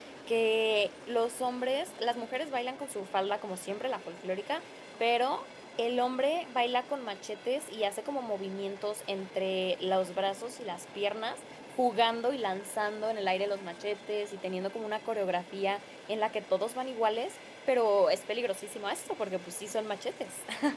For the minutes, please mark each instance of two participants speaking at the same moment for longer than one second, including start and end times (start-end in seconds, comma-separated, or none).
none